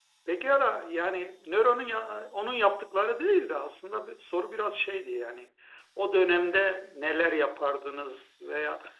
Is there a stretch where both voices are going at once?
No

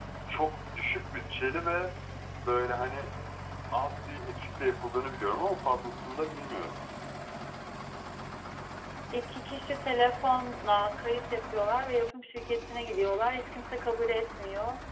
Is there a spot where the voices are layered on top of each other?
No

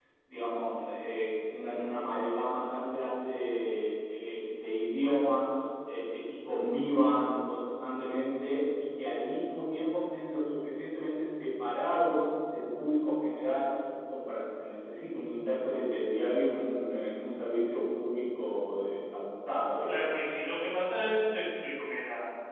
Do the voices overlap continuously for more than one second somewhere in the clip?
No

